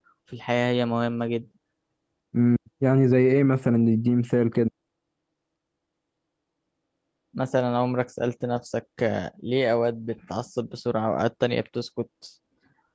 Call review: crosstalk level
none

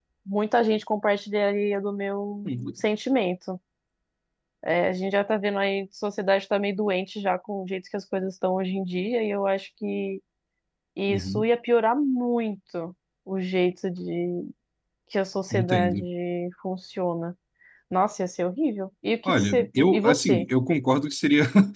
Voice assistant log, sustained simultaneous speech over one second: present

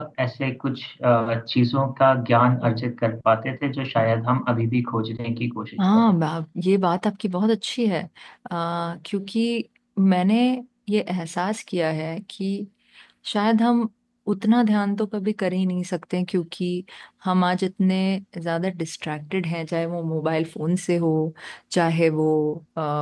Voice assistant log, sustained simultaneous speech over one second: none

